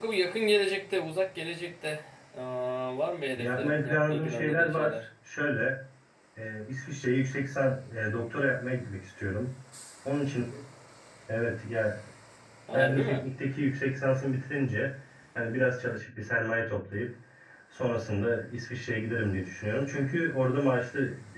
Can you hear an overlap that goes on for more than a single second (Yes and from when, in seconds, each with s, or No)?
Yes, from 3.4 s